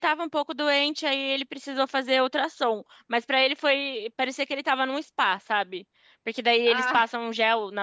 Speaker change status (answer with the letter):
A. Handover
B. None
B